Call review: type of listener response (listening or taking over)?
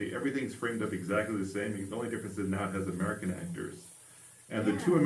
listening